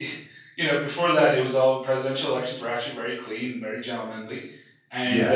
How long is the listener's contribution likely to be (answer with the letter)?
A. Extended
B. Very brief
B